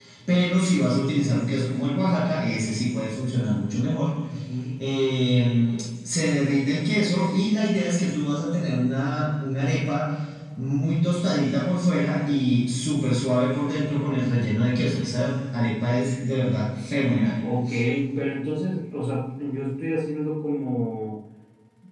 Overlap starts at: none

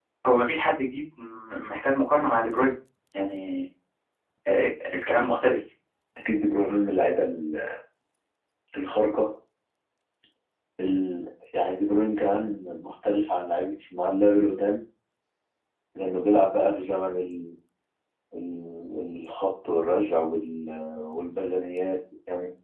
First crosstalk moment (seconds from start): none

